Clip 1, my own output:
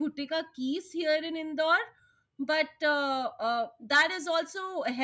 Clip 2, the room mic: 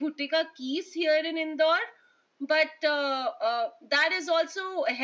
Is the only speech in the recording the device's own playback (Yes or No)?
Yes